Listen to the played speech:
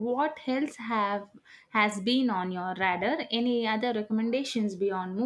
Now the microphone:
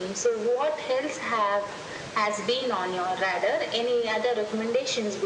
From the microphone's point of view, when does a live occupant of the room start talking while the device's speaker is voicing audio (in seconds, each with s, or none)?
none